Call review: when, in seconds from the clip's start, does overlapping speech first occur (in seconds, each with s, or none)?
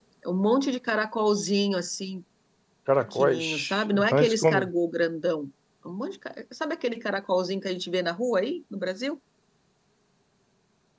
3.0 s